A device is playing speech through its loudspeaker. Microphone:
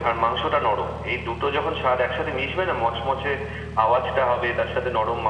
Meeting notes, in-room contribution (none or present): none